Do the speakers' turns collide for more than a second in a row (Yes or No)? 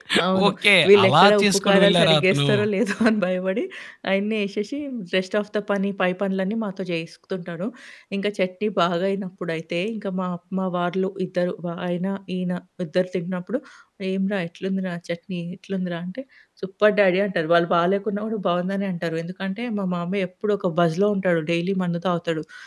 Yes